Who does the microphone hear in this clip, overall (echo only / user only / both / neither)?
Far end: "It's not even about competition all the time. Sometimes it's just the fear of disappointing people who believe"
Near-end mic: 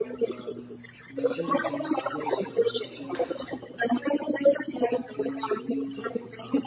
both